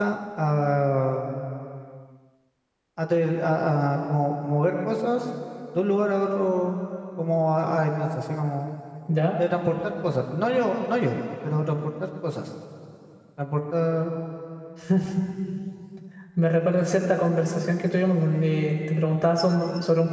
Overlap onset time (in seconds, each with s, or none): none